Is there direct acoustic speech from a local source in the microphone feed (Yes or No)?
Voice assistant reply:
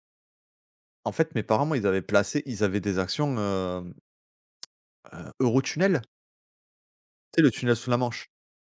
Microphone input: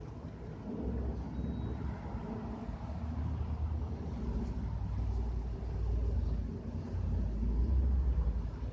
No